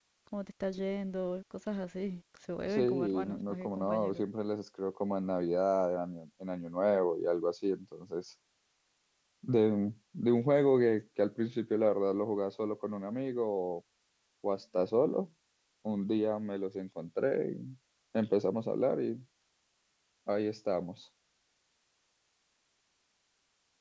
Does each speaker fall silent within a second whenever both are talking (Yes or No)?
No